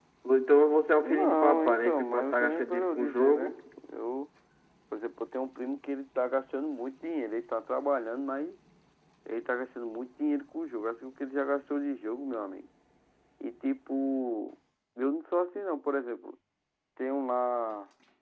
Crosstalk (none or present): present